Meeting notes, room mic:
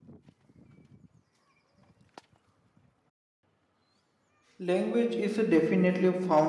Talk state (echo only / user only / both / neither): user only